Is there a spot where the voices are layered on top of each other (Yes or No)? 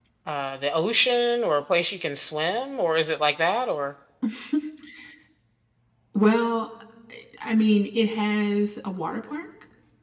No